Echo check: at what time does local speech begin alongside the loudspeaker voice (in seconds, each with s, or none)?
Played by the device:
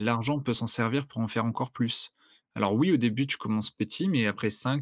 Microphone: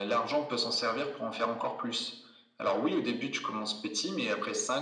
none